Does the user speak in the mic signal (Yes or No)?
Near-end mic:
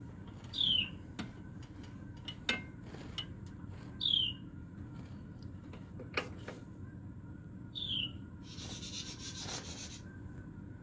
No